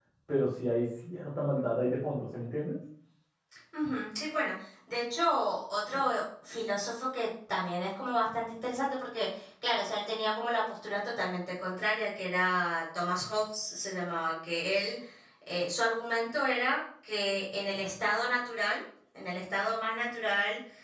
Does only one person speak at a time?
Yes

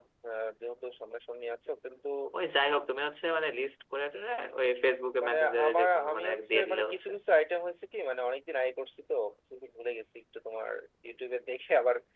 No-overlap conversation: No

